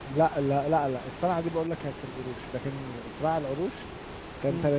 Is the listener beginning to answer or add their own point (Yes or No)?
Yes